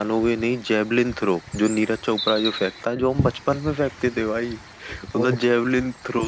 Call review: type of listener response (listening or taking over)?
listening